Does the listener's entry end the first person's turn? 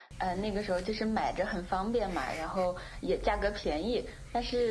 No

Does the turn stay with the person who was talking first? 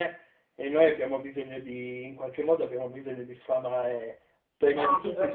No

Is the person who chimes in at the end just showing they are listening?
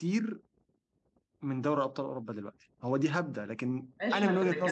No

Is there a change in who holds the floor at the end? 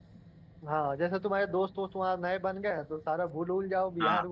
No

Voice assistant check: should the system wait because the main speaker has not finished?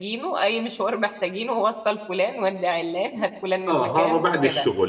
No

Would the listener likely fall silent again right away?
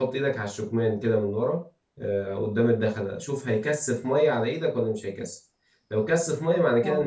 Yes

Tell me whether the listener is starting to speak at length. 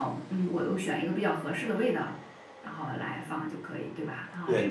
Yes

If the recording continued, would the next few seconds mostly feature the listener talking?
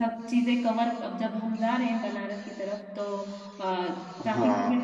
No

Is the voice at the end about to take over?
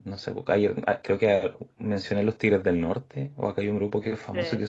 No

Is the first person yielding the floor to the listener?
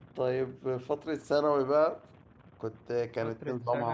Yes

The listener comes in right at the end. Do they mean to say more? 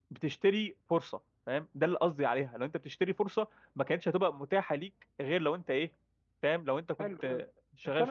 Yes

